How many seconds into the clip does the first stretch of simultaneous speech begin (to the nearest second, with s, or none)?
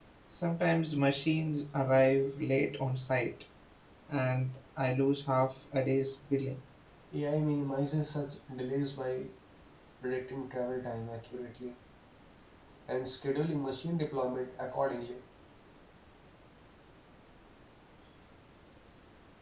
none